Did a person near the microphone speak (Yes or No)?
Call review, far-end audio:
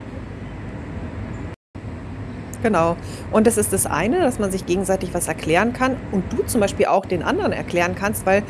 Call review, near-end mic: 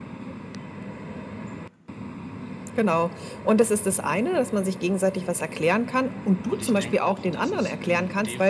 Yes